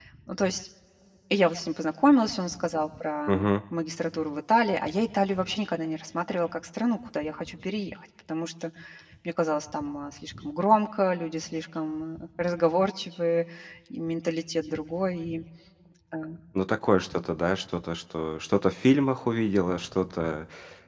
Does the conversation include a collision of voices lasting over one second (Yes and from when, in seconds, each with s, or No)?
No